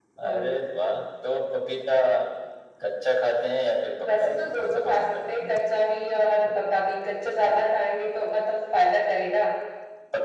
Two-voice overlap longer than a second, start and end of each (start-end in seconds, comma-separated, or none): 4.2-5.5